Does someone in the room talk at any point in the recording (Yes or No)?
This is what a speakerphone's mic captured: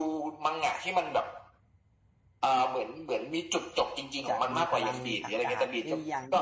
Yes